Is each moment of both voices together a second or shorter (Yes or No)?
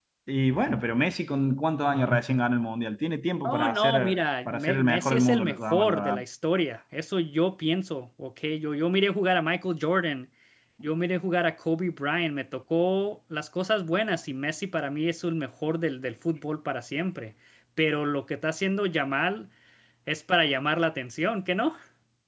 No